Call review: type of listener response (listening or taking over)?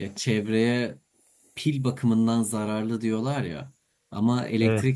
listening